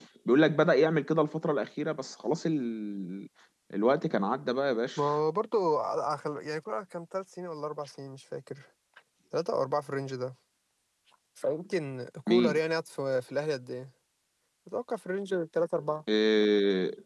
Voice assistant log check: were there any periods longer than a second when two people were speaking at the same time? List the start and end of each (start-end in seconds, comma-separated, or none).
none